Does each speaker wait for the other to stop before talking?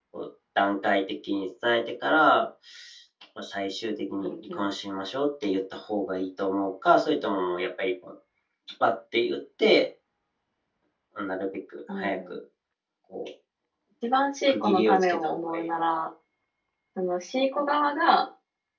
No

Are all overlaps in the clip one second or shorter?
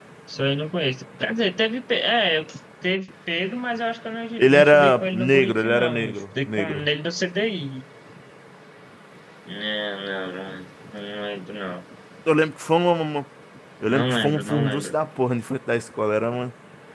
No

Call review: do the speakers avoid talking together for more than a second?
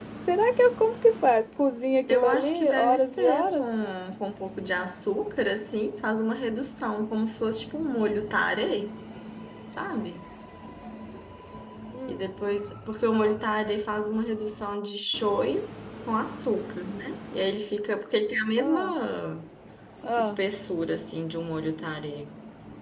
No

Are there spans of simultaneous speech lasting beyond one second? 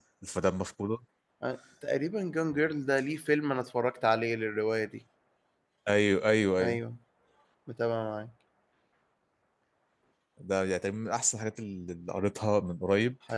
No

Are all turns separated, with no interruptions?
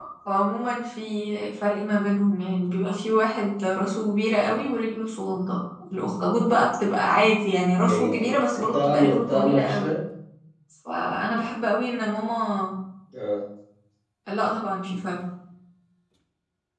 No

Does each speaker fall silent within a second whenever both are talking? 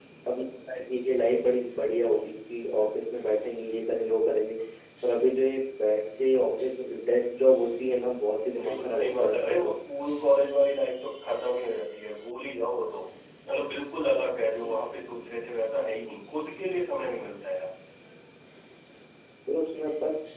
No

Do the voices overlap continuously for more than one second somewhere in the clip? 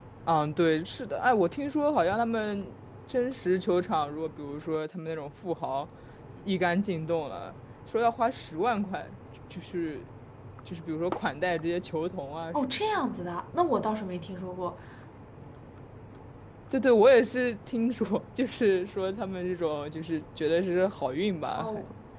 No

